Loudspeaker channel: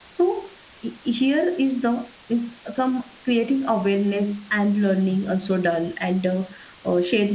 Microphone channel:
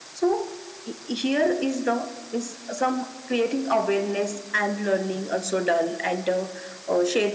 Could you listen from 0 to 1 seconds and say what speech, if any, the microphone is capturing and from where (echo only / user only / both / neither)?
echo only